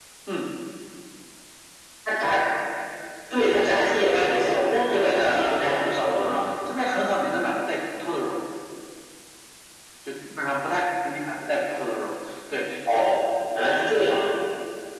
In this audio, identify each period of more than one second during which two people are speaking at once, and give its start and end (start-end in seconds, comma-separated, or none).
4.1-6.3